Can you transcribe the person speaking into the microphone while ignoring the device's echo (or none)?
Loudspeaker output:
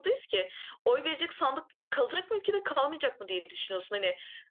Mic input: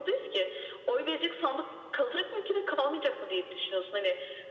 none